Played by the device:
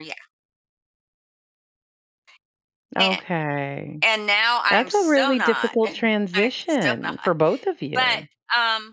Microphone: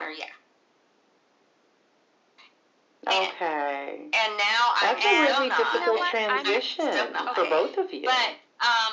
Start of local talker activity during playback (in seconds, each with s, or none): 5.0 s